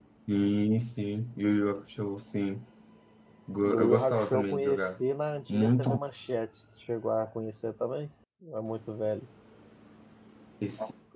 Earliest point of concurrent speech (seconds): 3.6 s

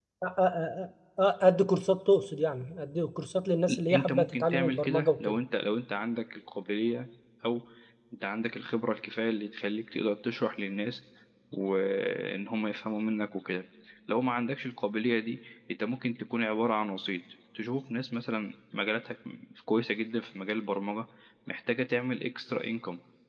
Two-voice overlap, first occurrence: 3.7 s

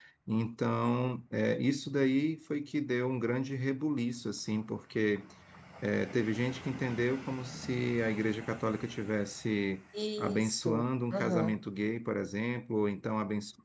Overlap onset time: 10.2 s

